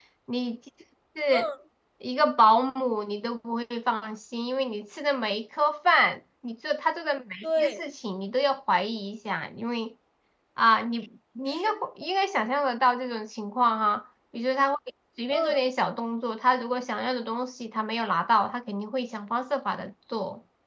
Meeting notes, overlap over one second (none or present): none